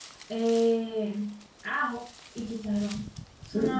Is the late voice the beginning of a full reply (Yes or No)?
Yes